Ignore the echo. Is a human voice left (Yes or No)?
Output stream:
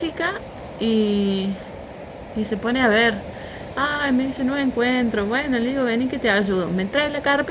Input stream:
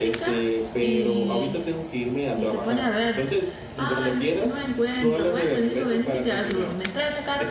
Yes